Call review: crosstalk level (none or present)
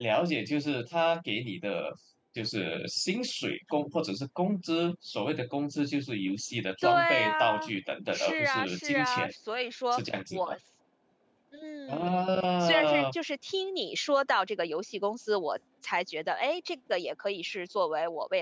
present